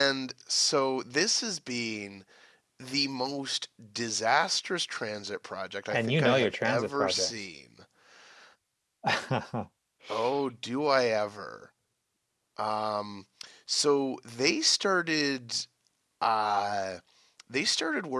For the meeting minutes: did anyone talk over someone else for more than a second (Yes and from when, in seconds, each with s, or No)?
Yes, from 5.9 s